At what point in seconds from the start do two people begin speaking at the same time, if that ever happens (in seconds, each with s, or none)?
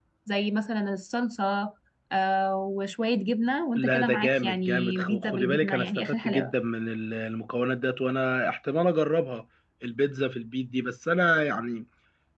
3.8 s